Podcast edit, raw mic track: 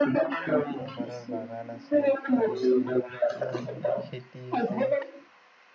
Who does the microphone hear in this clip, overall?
both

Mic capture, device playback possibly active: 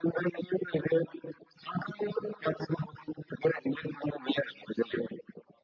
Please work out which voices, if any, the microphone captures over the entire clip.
echo only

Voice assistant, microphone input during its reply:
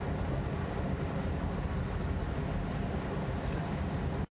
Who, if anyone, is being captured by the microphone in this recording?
neither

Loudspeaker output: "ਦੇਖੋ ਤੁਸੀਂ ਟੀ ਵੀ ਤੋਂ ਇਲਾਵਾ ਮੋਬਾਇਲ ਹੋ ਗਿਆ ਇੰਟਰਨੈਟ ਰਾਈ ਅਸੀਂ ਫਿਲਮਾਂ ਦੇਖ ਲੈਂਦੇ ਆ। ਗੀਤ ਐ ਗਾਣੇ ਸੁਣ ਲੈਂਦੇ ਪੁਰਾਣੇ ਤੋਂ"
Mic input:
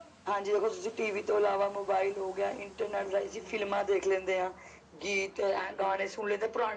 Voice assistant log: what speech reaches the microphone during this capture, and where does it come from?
echo only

